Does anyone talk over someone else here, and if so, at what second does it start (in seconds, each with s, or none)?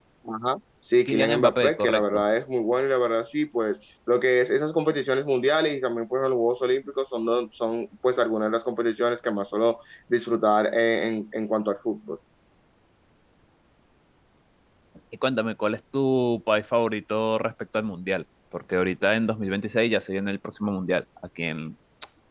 1.1 s